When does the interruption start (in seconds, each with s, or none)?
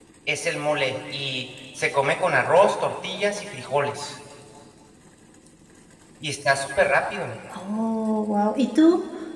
none